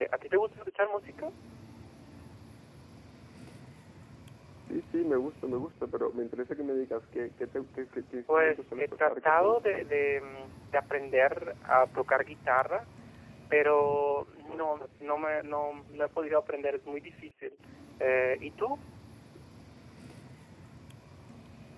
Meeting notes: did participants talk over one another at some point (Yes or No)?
Yes